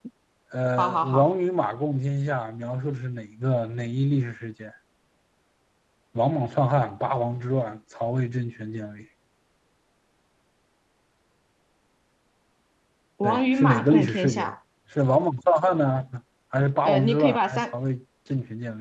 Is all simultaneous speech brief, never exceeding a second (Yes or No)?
No